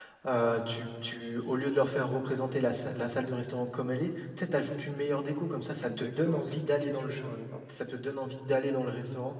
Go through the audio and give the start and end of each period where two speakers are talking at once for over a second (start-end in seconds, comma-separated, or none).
5.8-7.3